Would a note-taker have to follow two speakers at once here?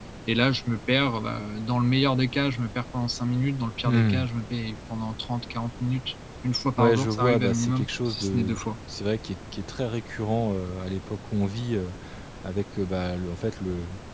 Yes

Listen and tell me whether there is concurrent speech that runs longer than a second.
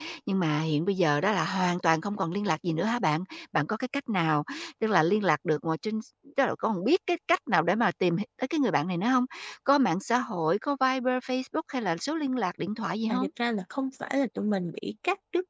No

